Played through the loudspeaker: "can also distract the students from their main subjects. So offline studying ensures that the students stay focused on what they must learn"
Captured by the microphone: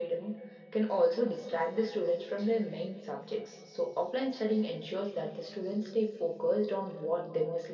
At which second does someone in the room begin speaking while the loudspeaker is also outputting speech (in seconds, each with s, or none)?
none